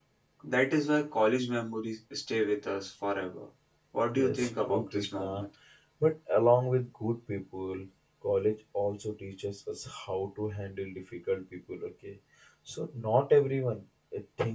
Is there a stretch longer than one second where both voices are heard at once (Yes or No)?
Yes